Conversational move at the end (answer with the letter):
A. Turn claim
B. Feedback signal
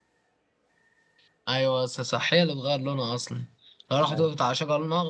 B